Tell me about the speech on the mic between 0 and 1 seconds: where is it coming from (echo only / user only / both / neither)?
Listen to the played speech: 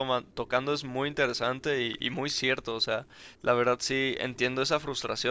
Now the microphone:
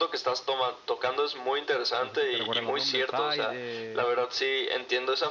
echo only